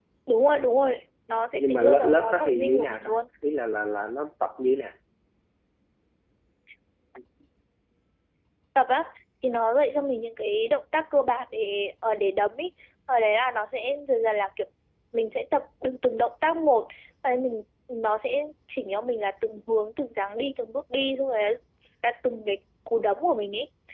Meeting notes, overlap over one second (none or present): present